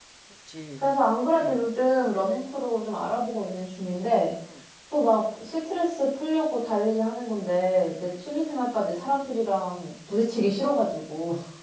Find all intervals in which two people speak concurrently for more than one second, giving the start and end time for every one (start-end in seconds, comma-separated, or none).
none